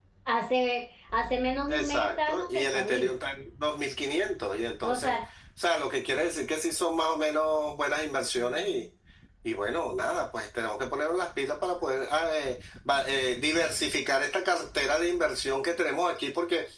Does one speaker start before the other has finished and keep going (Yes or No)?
Yes